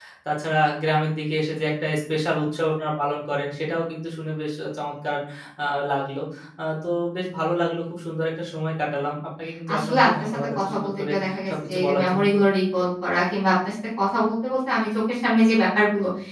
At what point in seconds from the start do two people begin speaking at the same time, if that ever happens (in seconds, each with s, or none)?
9.7 s